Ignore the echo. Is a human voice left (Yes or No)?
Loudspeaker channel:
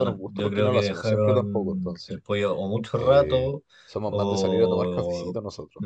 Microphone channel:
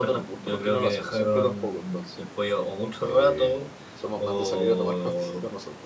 No